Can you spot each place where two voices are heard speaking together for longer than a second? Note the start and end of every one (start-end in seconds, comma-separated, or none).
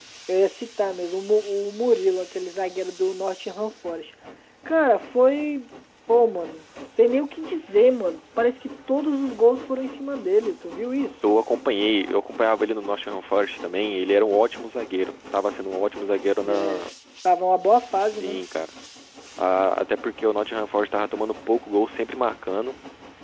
none